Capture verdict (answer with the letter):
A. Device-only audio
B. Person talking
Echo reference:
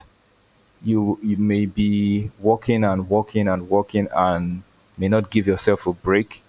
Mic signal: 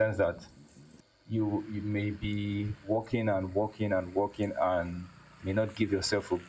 A